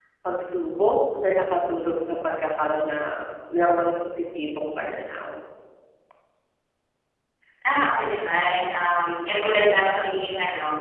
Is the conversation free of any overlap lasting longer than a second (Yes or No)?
Yes